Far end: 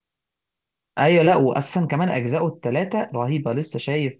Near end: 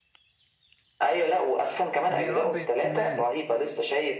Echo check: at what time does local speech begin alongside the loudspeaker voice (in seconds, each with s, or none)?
2.1 s